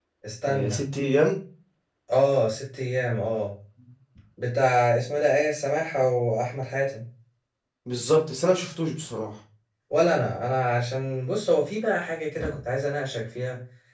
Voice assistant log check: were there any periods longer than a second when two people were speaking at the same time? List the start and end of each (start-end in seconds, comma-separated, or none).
none